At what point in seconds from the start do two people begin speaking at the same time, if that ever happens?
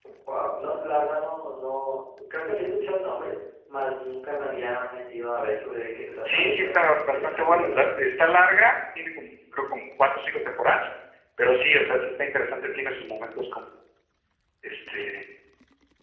6 s

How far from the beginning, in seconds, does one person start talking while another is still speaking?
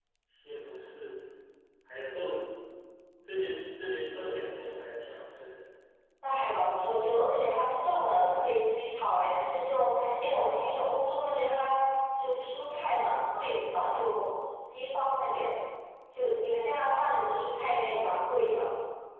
none

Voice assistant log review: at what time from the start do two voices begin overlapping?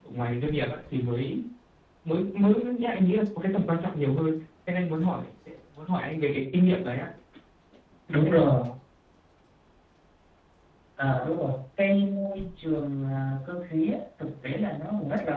none

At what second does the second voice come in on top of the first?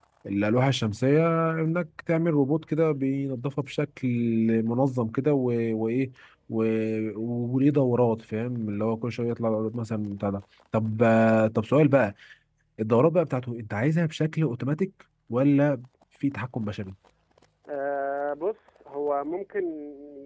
none

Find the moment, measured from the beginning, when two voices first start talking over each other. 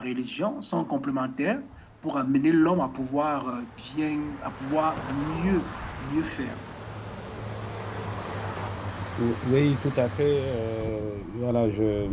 none

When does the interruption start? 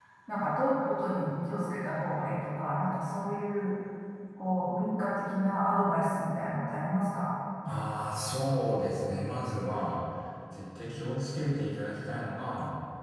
none

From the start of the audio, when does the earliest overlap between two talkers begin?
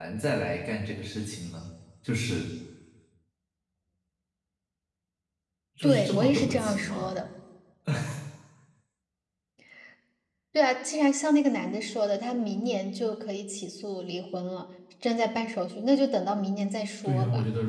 6 s

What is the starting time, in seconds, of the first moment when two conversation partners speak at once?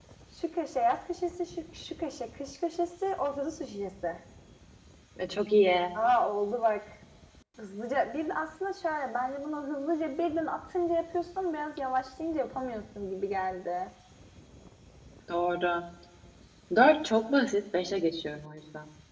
none

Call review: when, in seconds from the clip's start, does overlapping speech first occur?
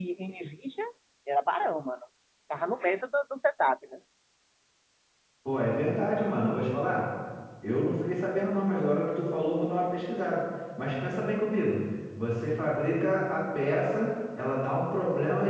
none

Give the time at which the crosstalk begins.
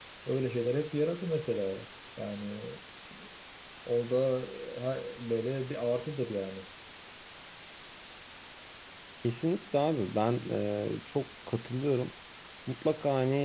none

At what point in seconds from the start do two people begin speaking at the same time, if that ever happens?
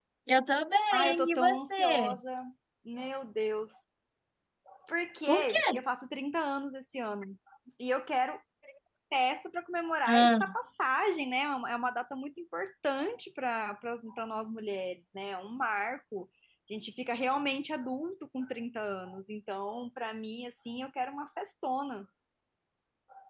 1 s

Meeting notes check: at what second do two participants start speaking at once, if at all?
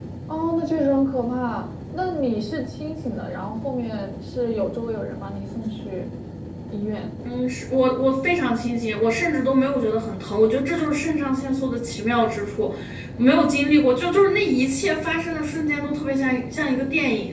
none

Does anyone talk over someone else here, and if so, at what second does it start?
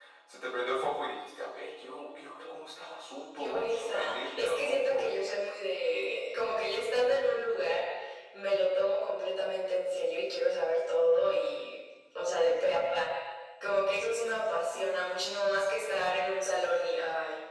3 s

